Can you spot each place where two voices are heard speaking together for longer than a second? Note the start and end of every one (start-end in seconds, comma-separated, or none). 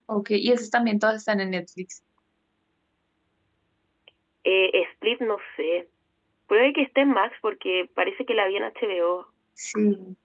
none